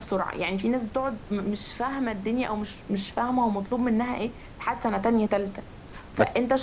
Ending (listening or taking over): listening